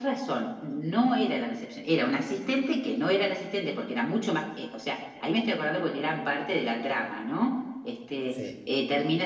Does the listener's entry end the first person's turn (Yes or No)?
No